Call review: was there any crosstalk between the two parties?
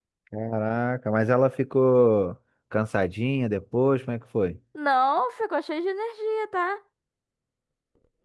No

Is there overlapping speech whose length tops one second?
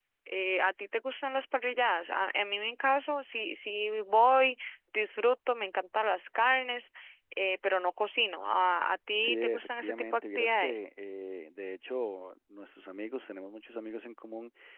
Yes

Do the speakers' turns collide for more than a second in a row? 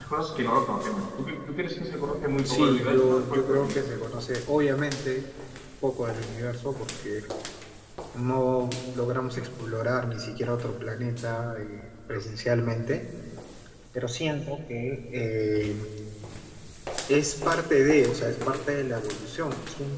Yes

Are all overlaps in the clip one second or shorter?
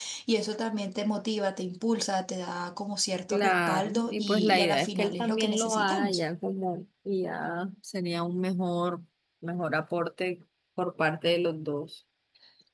No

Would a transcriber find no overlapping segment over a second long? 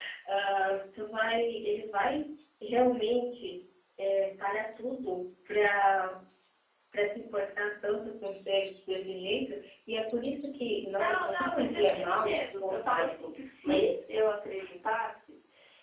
No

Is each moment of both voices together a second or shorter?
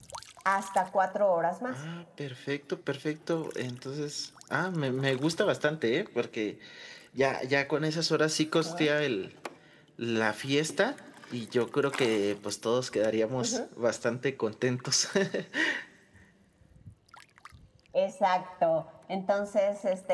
Yes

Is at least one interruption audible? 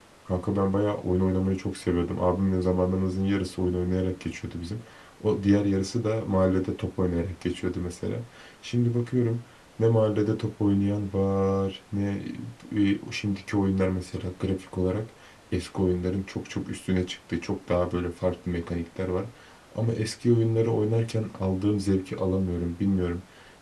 No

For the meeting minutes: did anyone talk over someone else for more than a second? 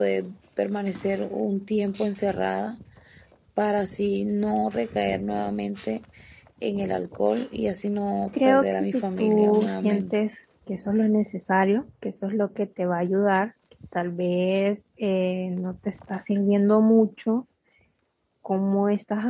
Yes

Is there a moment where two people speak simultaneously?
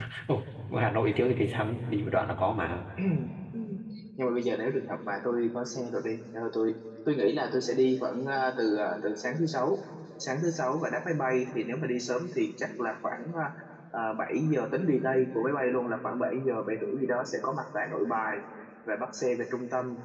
No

